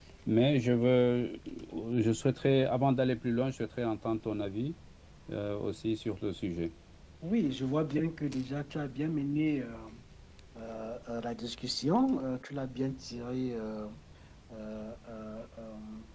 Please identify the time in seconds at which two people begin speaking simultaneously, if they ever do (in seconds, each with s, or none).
none